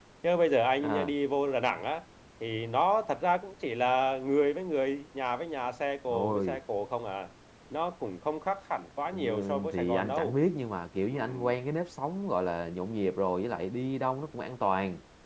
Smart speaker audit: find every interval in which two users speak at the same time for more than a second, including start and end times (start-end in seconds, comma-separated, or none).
9.1-10.3